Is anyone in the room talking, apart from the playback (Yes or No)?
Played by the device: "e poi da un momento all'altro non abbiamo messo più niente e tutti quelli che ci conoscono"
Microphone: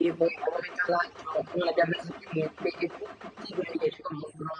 No